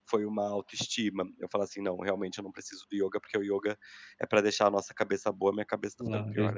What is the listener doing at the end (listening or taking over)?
taking over